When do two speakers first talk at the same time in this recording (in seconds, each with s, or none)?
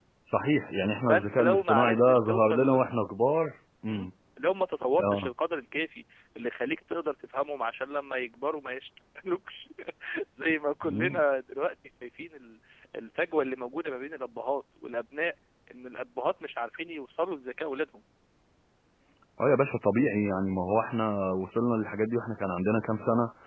1.1 s